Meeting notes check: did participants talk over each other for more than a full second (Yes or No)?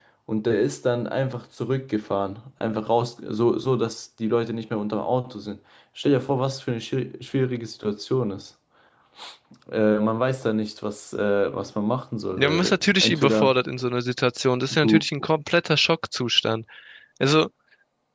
Yes